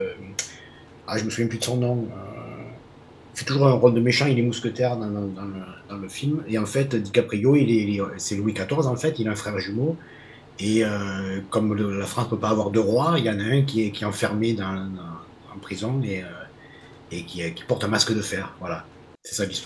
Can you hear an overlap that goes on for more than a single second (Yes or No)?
No